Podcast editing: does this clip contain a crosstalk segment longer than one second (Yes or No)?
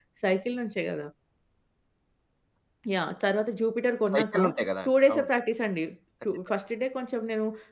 No